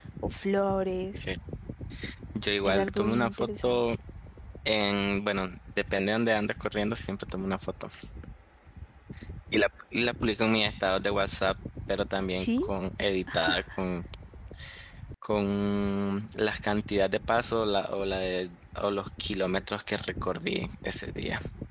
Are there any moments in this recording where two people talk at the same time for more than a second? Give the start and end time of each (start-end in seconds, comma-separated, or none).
2.6-4.0